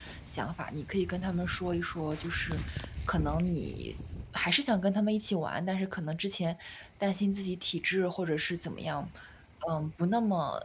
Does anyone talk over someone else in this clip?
No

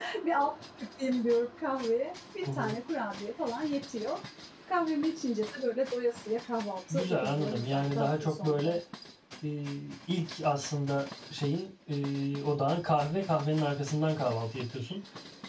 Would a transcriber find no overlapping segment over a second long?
No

